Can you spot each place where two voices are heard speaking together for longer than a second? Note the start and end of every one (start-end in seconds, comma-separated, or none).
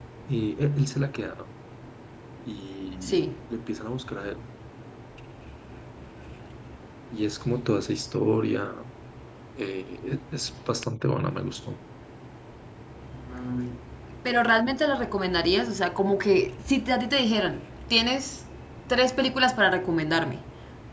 none